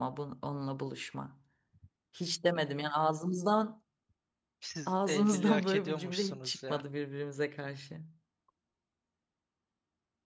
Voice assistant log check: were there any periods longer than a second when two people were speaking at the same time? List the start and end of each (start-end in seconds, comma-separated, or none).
4.9-6.8